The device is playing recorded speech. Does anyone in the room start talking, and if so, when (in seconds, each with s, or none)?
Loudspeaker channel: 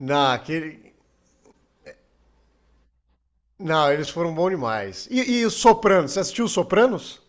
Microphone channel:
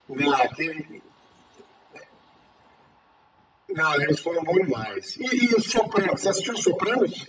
none